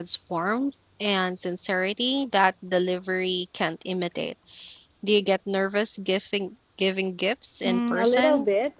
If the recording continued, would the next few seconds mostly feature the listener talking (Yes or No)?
Yes